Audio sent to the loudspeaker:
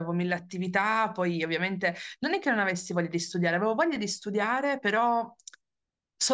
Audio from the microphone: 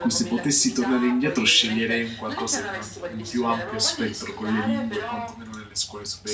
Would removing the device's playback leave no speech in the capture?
No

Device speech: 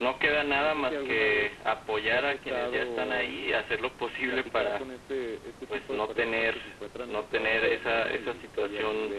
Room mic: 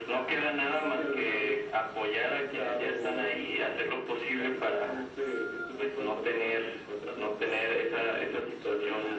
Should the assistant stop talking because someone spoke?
No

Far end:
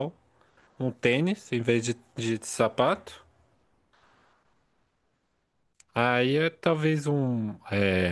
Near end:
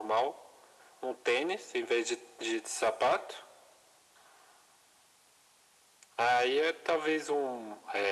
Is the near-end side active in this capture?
No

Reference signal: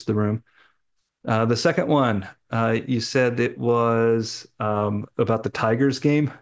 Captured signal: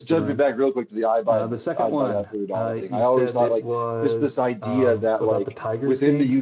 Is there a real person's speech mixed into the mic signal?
Yes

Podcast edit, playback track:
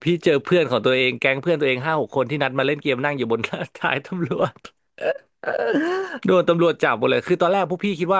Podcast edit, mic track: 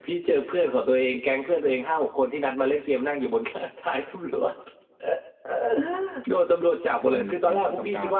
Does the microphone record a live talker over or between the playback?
Yes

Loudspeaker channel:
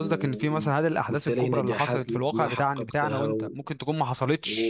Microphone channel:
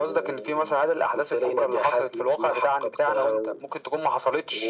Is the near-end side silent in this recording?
Yes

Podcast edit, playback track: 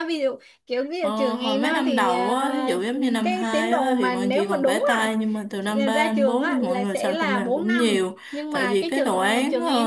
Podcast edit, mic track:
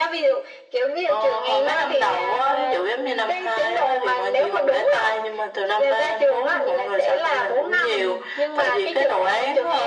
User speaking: Yes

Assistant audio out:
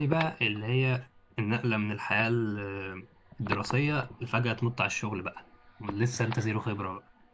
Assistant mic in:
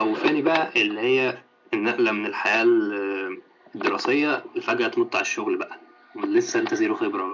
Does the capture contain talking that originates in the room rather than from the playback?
No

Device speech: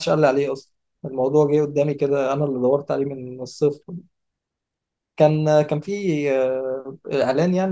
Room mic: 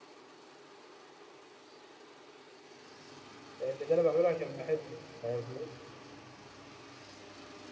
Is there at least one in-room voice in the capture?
Yes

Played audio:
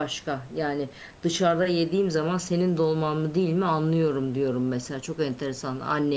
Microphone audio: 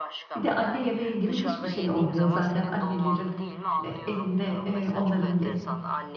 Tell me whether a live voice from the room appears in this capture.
Yes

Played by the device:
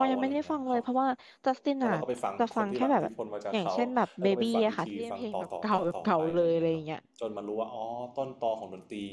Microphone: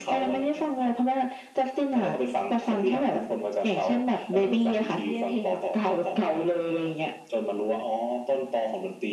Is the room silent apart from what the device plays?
Yes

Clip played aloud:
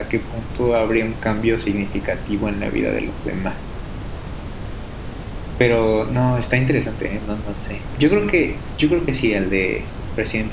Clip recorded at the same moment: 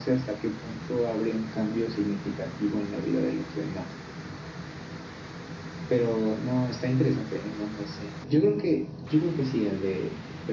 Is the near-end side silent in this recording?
Yes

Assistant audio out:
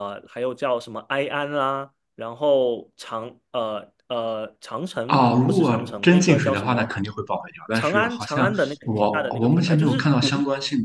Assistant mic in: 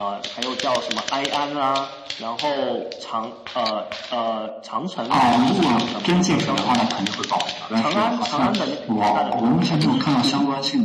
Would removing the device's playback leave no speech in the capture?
Yes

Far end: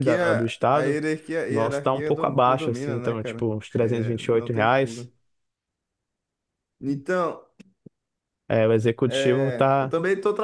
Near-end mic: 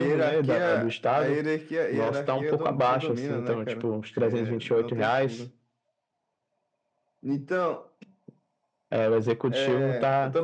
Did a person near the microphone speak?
No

